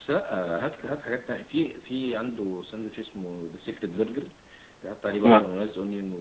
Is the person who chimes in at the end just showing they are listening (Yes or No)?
Yes